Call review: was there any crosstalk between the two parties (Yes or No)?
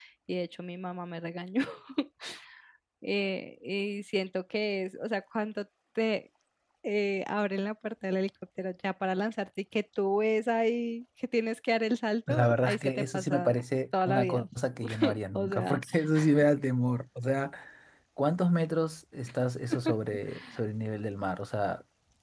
Yes